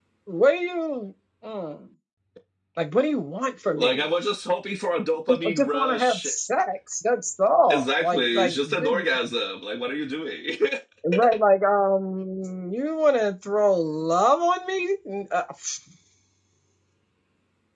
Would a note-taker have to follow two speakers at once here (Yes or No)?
Yes